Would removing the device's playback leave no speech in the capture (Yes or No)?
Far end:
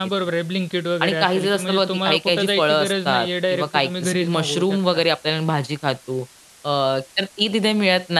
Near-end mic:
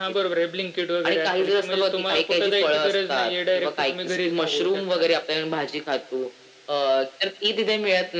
Yes